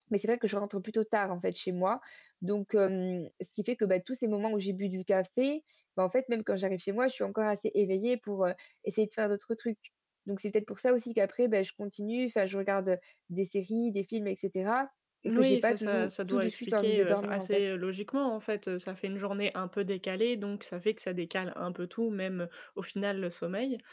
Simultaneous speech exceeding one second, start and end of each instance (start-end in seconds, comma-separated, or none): 15.3-17.6